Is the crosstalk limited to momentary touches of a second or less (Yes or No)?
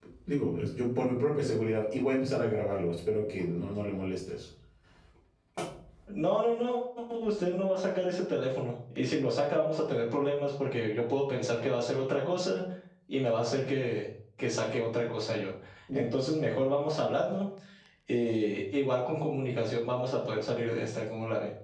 Yes